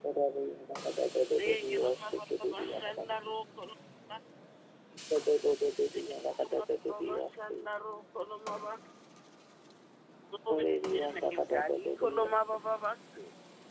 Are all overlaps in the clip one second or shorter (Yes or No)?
No